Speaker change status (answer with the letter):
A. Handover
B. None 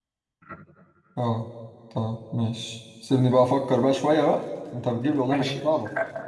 A